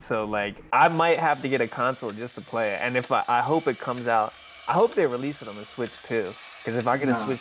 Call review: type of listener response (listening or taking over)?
taking over